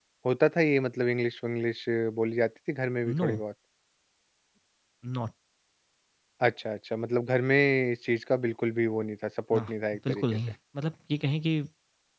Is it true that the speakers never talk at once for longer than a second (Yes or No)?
Yes